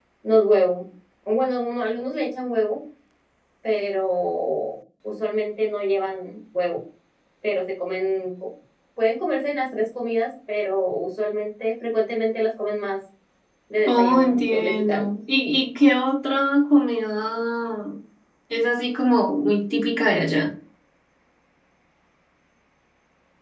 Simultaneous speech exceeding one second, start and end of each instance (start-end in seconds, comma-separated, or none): 13.9-15.1